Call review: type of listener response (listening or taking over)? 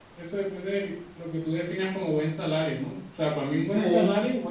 listening